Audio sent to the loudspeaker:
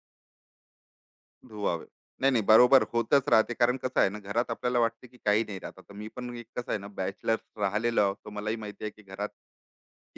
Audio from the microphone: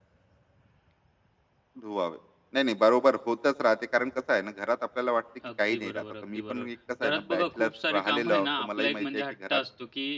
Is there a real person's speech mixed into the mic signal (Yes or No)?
Yes